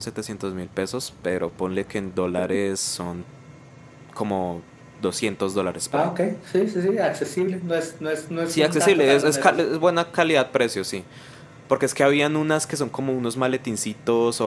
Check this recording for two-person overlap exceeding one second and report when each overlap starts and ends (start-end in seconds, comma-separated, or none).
8.5-9.7